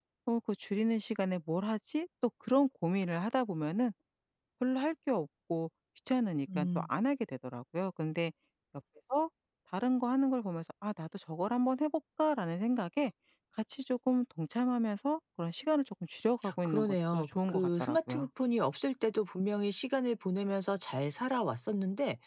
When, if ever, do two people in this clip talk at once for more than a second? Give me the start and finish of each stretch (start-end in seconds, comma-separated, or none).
16.6-18.3